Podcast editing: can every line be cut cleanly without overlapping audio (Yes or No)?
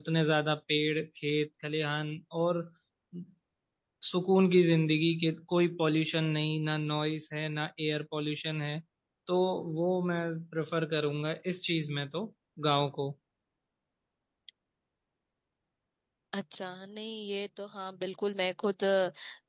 Yes